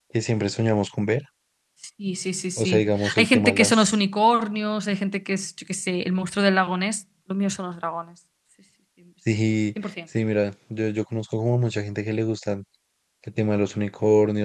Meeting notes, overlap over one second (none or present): present